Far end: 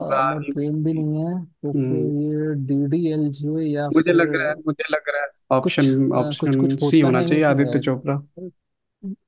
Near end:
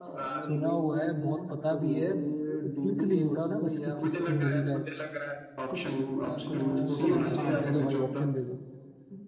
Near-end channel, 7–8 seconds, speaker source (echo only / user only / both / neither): both